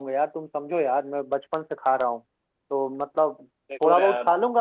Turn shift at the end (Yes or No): No